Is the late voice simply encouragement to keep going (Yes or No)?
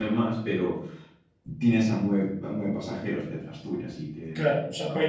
No